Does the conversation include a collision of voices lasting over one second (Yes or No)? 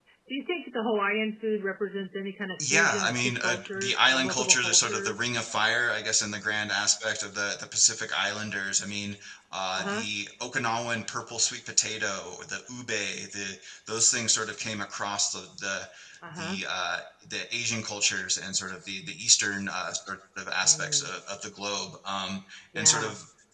Yes